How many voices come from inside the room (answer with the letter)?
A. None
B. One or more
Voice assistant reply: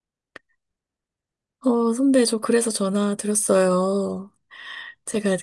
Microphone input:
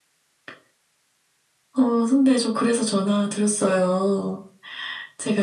A